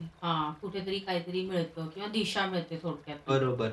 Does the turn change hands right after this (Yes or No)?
Yes